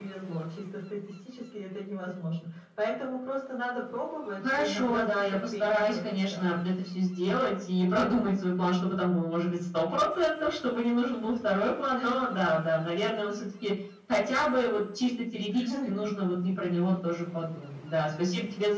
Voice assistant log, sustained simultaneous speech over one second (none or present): present